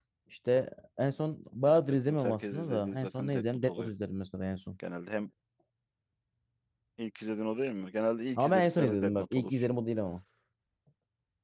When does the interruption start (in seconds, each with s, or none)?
1.6 s